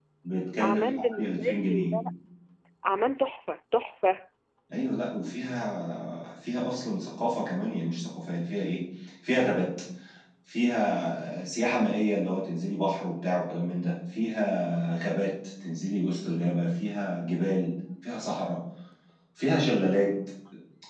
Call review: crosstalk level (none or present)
present